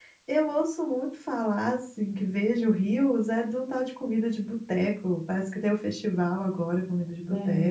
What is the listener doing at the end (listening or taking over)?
taking over